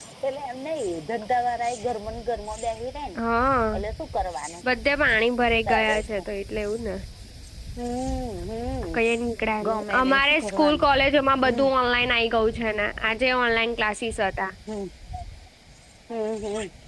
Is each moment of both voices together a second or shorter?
No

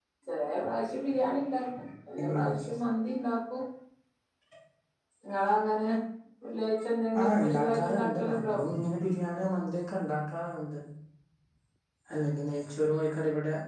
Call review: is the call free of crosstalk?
No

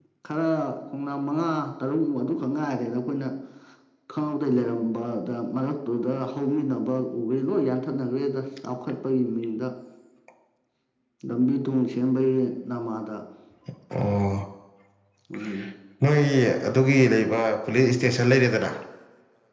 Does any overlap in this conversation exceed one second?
No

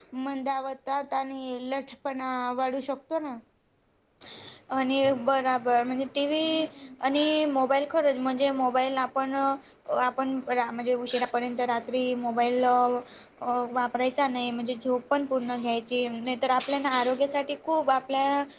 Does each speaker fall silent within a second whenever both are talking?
Yes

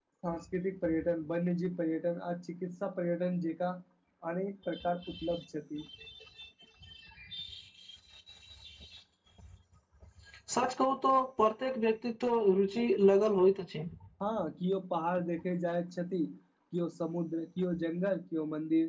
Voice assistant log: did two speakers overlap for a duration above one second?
No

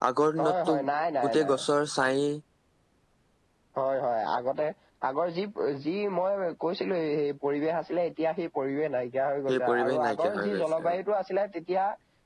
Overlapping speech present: Yes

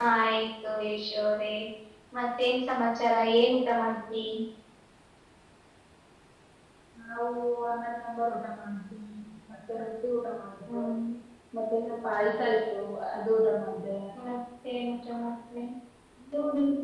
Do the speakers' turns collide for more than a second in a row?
No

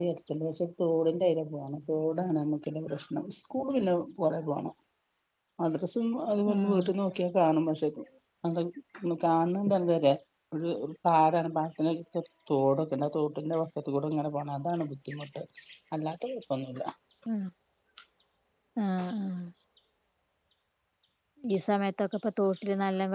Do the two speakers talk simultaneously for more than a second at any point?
No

